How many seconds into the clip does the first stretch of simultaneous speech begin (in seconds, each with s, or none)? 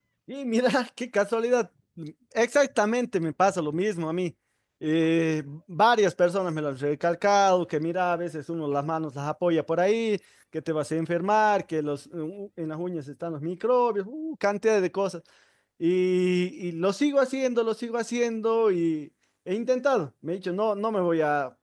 none